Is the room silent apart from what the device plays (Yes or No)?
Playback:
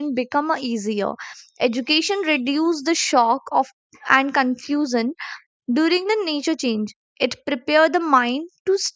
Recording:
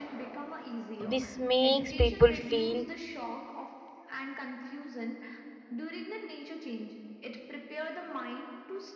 No